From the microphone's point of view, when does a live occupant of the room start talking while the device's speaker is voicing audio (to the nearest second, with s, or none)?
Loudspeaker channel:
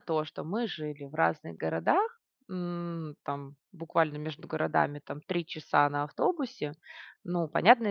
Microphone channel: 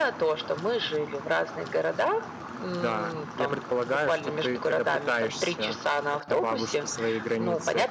3 s